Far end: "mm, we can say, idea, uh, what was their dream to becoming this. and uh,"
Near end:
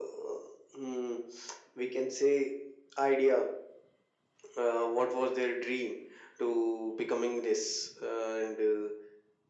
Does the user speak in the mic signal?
No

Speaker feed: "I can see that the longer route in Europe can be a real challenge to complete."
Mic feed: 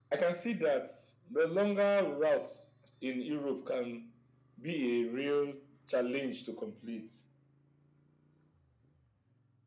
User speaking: No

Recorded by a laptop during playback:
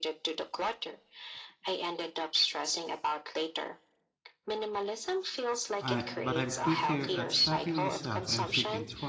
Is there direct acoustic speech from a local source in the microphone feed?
Yes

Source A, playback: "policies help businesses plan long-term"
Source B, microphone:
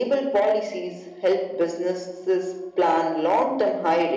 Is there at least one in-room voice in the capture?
No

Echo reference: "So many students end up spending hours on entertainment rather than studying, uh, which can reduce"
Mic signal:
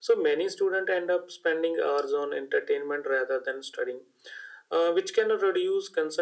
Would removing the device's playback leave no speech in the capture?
Yes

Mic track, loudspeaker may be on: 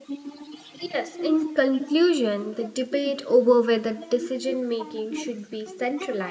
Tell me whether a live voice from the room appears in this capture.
Yes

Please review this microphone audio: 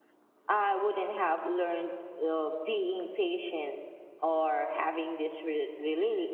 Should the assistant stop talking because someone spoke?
Yes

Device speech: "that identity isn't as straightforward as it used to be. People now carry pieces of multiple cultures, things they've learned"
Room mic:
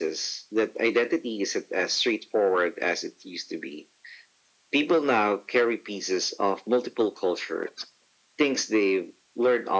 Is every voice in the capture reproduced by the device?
Yes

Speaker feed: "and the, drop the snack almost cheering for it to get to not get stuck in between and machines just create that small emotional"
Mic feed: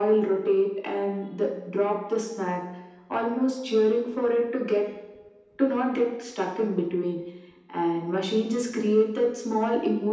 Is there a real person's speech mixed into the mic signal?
No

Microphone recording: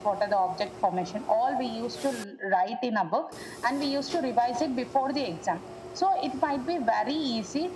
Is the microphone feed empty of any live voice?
Yes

